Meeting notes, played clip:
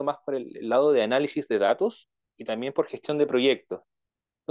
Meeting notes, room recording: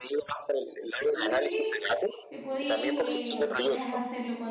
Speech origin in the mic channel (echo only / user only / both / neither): both